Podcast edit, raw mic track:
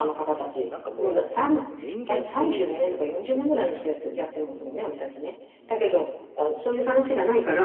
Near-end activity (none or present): present